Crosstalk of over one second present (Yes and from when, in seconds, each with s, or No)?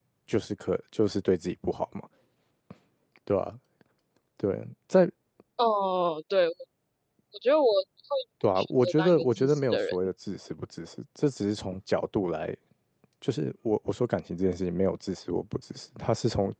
Yes, from 8.4 s